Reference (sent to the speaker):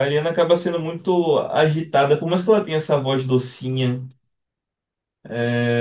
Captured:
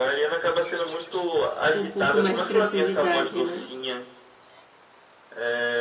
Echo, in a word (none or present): present